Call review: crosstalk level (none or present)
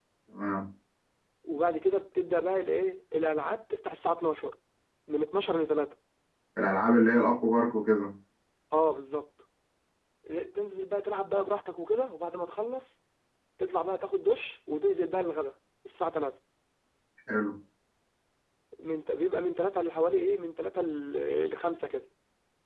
none